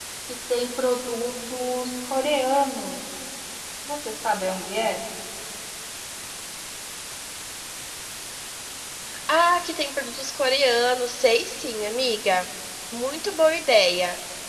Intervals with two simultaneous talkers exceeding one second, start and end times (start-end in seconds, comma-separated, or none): none